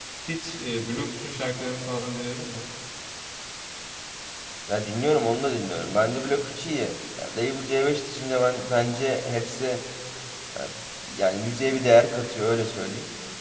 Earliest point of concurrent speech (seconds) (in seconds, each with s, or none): none